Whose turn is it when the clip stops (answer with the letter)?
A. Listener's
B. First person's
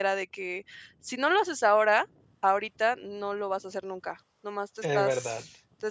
B